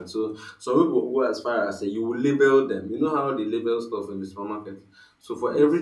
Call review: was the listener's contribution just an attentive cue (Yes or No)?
Yes